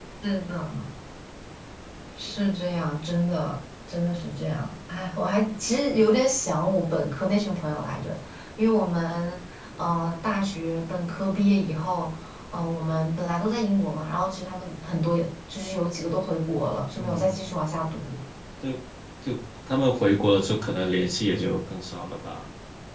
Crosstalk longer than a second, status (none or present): none